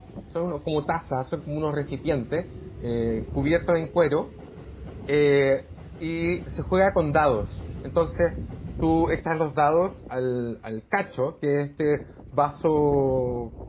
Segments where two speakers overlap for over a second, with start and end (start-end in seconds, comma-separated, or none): none